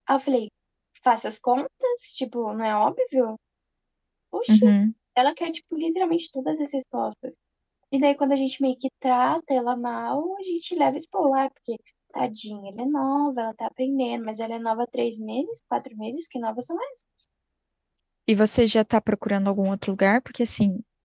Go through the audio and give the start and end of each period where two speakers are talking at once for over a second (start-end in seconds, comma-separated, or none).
none